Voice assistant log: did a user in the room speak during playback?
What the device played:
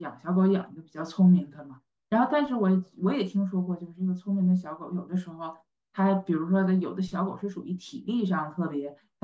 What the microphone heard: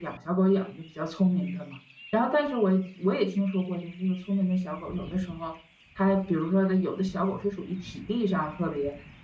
No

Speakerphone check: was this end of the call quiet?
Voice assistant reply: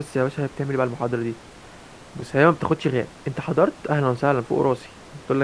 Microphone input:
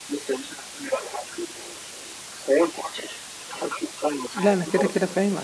No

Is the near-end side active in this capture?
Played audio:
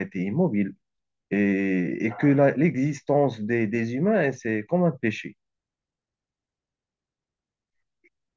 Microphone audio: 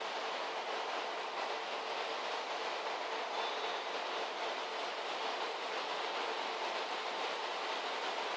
No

